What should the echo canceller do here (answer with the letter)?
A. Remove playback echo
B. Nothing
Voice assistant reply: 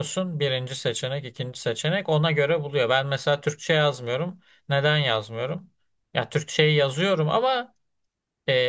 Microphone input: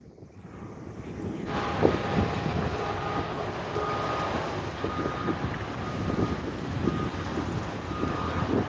B